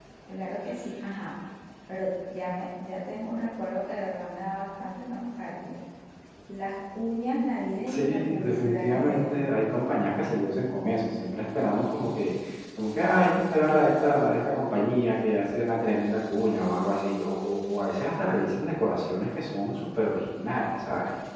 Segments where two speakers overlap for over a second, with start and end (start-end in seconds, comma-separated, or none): 7.9-9.5